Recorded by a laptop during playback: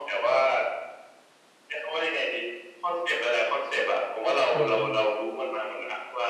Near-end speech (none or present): present